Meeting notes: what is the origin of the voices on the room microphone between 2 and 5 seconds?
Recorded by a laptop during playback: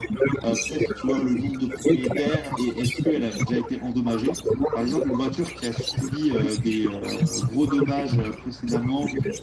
both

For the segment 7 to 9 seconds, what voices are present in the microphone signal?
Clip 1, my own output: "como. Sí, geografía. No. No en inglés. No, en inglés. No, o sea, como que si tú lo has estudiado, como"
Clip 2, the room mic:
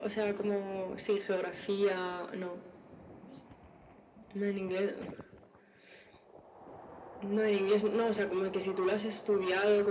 echo only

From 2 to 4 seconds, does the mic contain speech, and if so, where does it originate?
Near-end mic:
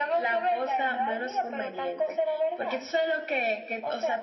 echo only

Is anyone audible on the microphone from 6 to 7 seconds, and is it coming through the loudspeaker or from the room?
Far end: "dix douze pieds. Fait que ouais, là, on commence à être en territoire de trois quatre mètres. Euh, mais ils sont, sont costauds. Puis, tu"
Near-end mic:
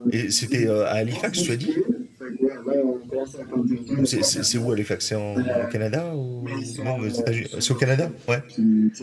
both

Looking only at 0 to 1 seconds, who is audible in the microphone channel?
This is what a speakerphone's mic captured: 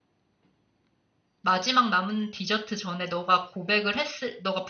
neither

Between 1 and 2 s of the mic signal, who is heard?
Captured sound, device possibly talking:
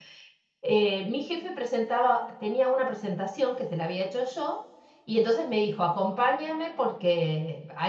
user only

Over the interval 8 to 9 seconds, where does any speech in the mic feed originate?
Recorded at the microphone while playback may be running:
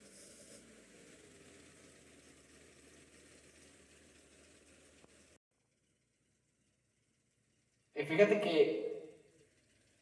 user only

